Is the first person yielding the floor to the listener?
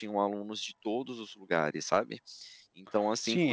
Yes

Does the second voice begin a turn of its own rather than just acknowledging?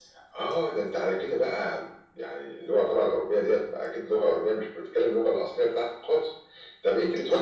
No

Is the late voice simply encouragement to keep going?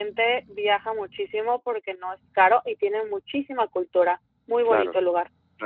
No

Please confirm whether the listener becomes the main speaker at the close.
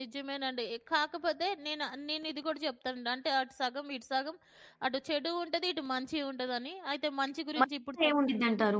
Yes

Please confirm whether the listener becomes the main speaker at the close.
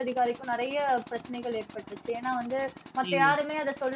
No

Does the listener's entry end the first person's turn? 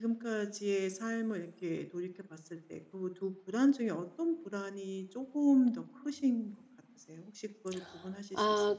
Yes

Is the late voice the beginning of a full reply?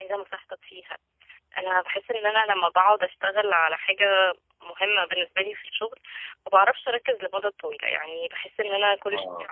No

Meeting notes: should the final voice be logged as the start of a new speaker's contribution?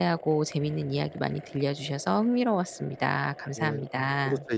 Yes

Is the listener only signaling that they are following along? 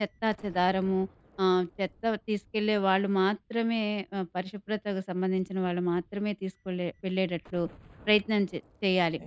Yes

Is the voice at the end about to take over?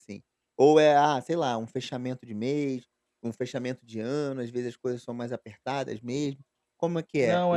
Yes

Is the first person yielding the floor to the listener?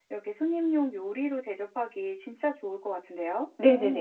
Yes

